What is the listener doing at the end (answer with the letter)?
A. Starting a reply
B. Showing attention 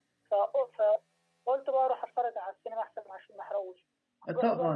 A